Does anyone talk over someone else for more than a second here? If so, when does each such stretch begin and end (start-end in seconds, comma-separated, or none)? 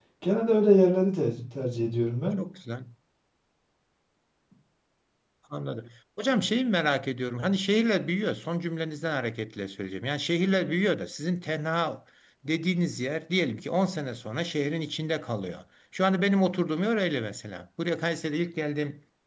none